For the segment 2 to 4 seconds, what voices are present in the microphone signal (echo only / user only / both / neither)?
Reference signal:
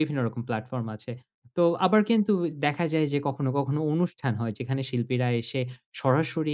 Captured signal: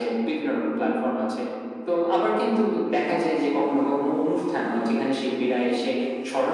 echo only